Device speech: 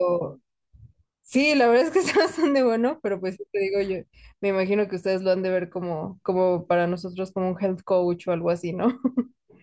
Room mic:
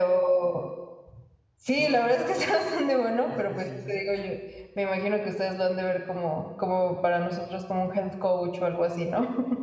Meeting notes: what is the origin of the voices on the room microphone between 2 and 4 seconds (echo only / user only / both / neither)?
both